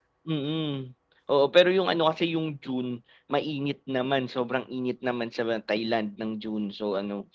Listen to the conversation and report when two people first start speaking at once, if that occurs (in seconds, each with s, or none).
none